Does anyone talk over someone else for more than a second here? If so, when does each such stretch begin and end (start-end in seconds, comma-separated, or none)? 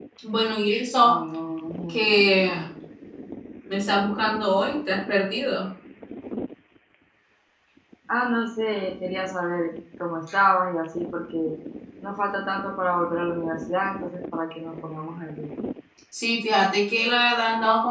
none